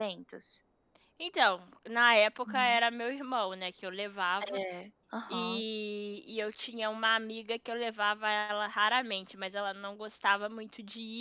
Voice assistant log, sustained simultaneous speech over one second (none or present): none